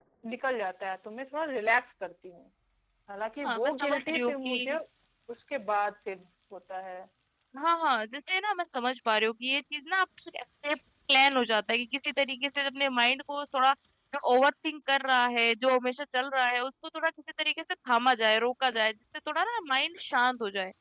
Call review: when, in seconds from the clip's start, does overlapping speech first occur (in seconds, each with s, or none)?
3.4 s